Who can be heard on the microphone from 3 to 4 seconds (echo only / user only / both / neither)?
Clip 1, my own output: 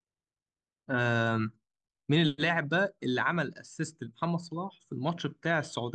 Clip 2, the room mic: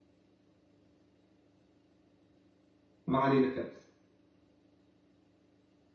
user only